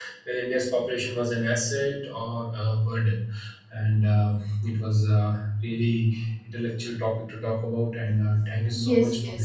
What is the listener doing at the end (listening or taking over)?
taking over